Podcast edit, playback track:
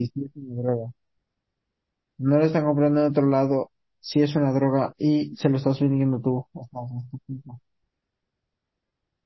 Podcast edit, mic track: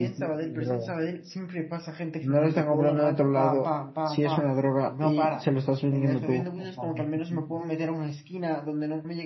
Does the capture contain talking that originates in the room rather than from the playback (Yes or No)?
Yes